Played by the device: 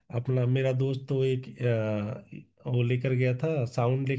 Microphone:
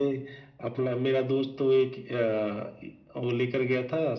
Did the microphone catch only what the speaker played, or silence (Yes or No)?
Yes